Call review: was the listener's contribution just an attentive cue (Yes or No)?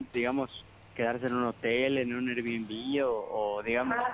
Yes